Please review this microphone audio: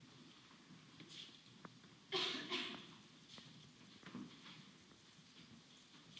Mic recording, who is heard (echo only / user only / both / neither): neither